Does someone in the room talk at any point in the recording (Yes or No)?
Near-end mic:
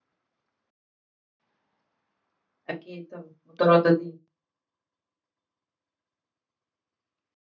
Yes